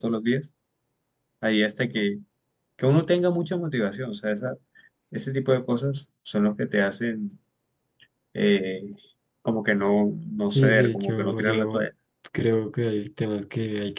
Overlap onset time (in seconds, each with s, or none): 10.5 s